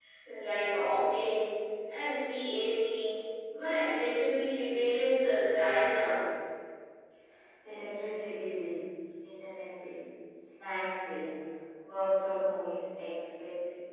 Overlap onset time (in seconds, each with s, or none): none